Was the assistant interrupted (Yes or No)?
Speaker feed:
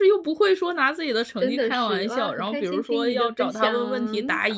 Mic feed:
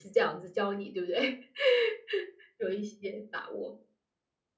Yes